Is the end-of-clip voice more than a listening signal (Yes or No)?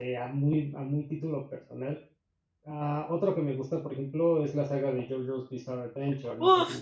Yes